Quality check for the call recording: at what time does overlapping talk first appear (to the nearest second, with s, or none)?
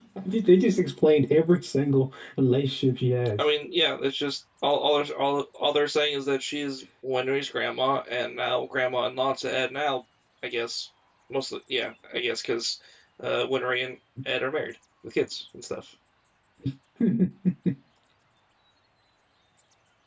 none